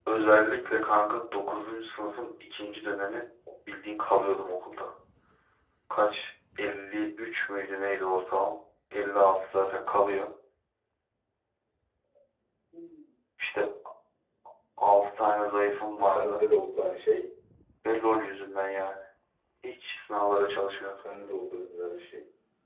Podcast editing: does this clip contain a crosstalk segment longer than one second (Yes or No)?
No